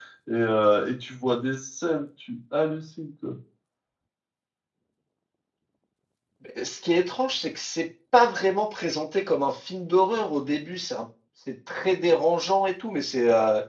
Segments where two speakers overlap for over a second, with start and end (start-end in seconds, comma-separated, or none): none